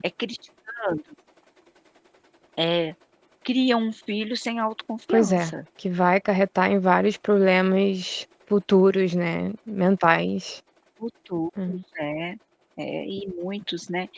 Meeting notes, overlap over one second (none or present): none